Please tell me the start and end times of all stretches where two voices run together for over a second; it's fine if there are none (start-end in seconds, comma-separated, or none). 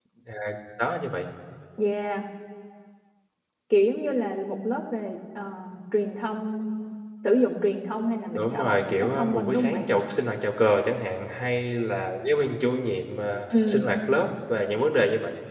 8.3-9.8